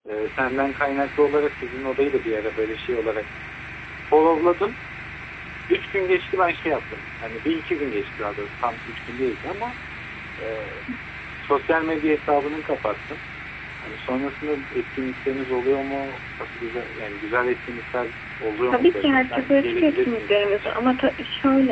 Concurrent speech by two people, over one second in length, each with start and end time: 18.7-20.8

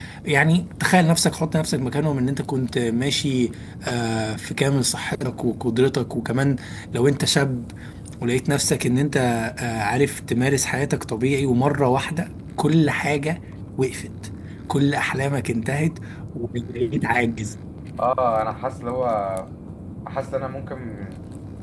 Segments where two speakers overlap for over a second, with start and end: none

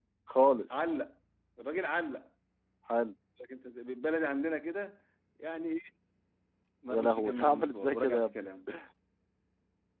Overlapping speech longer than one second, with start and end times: 6.9-8.3

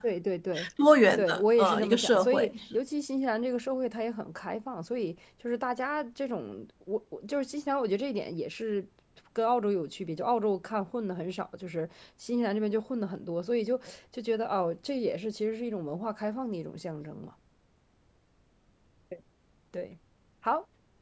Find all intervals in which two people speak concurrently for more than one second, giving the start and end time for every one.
1.2-2.5

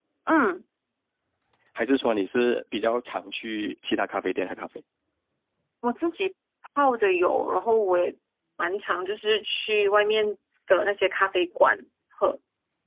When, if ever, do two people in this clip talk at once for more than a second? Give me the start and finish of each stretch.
none

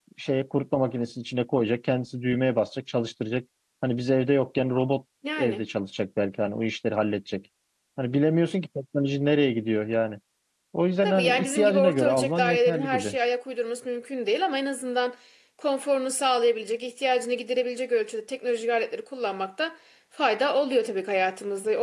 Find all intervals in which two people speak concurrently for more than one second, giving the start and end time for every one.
11.0-13.2

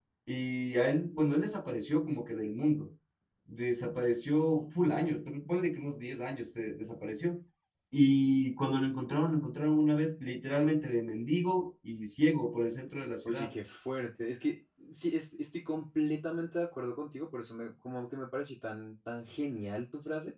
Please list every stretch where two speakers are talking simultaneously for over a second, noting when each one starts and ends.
none

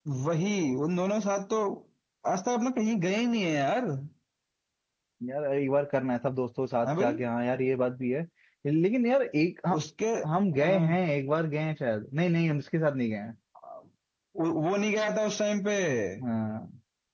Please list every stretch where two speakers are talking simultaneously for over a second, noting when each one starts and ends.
none

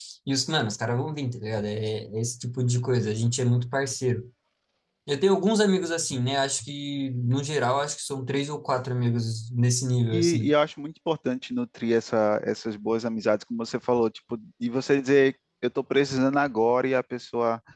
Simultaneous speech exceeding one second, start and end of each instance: none

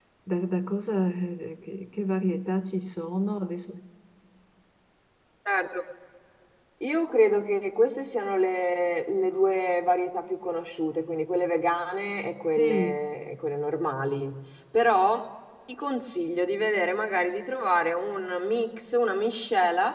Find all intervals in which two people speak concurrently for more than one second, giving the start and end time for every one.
none

